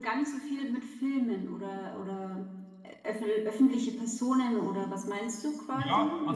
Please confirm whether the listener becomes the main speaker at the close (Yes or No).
Yes